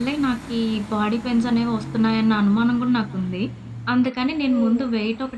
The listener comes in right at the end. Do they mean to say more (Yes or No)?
No